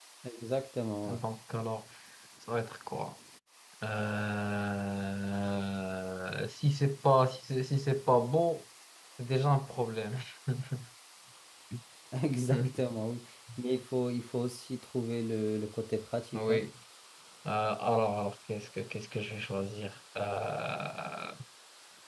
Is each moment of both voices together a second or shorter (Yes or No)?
Yes